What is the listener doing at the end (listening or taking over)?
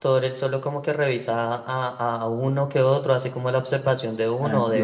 taking over